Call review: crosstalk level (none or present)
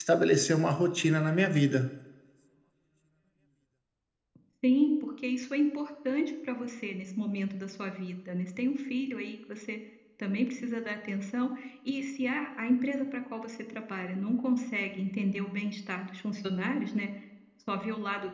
none